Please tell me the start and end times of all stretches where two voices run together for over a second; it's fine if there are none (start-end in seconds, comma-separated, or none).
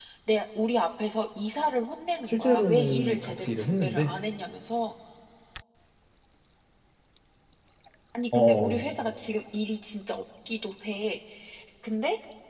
2.3-4.1